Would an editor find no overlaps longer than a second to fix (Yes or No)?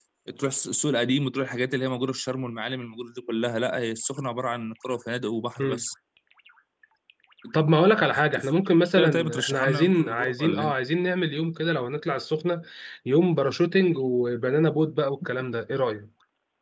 No